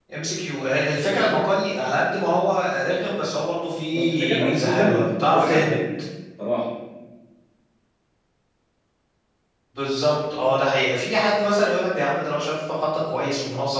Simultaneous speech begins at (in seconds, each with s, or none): 3.9 s